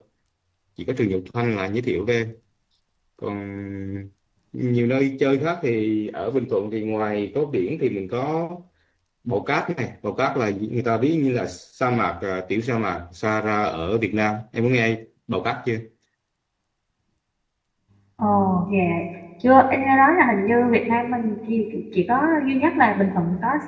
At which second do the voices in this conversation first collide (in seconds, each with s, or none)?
none